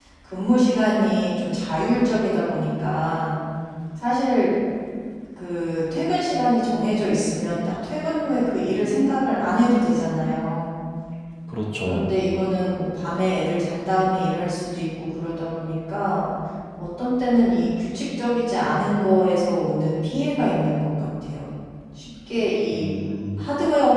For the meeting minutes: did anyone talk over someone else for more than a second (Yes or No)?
No